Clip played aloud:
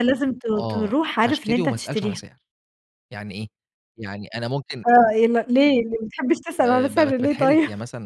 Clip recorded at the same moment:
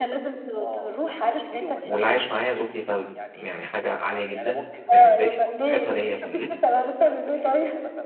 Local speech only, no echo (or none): واللي عايش معايا زوجتي ف يعني حاجة عالية جدًا، بالنسبة لي فنصيحتها ليّا في اللبس.